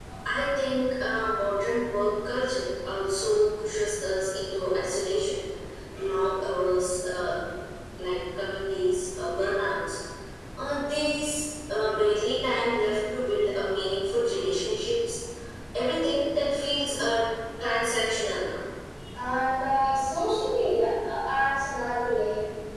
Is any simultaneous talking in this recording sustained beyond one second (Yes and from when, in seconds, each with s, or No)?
No